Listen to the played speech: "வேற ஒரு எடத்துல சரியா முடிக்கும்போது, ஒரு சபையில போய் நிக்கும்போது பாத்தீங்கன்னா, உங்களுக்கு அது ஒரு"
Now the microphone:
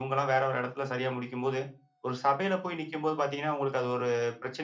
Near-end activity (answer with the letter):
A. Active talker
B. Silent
B